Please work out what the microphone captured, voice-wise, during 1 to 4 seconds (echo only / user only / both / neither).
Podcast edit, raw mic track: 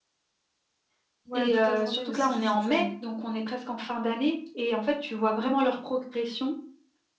both